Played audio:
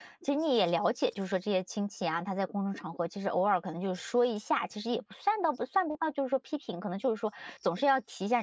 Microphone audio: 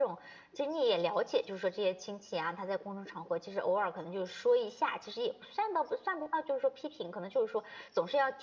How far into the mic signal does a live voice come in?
none

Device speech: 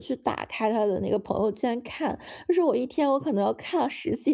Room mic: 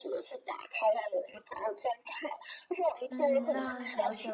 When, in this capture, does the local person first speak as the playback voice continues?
3 s

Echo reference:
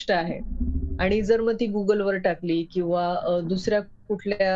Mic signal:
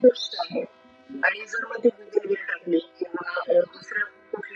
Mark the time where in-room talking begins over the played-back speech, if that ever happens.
none

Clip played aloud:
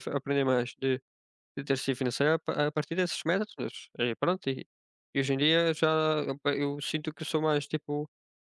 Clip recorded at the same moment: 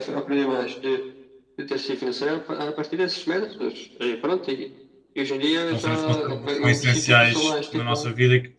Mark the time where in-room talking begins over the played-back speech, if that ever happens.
6 s

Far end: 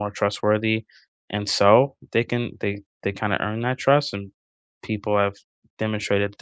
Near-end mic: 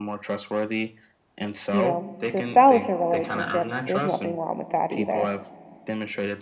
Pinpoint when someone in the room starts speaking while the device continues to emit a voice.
2 s

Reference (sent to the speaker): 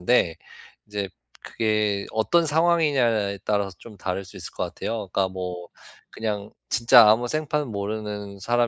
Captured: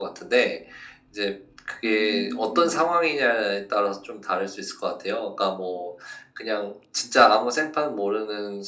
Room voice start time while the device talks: 2 s

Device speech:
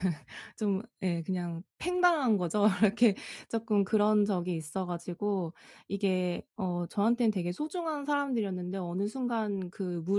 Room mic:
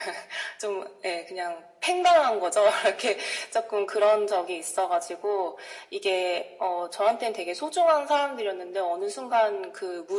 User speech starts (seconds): none

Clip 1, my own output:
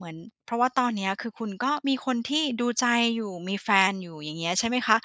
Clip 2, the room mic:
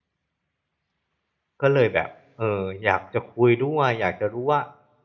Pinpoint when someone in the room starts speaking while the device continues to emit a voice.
2 s

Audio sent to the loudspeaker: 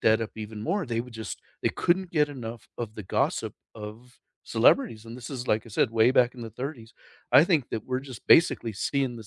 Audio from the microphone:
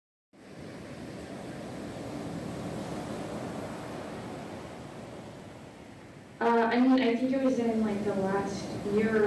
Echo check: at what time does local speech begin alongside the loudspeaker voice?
6 s

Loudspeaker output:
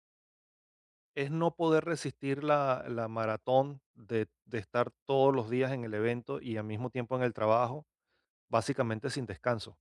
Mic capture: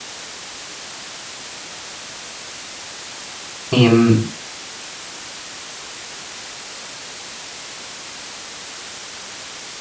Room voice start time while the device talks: 4 s

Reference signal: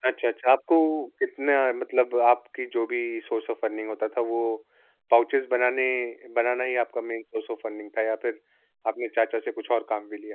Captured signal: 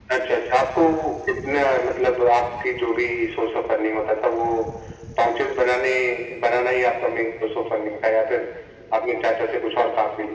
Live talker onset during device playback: none

